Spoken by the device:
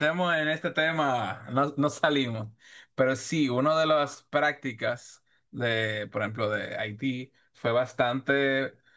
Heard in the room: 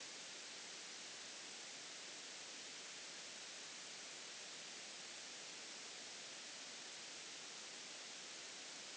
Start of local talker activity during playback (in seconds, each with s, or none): none